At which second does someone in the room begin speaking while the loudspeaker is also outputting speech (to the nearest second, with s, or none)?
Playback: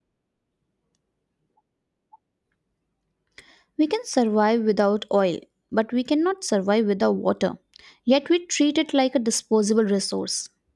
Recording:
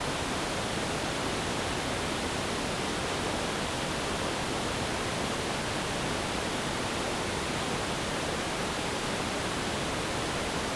none